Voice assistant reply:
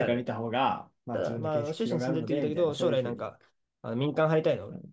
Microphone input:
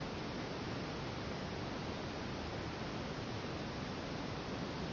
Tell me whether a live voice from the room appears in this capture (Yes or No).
No